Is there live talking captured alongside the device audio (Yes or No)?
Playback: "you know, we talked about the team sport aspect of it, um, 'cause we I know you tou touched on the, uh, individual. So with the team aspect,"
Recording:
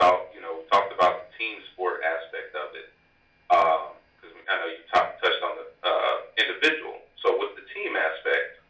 No